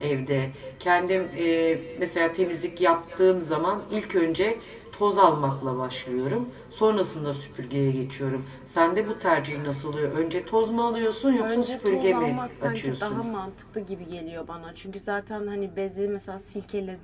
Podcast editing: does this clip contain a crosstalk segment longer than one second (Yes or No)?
Yes